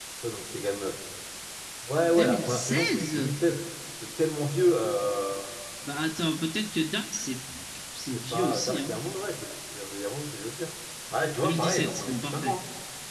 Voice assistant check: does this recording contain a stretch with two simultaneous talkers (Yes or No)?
Yes